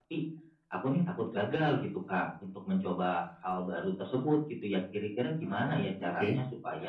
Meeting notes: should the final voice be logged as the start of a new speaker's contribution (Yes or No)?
No